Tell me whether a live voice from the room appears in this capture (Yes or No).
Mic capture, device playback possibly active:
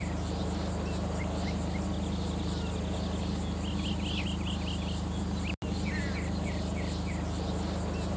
No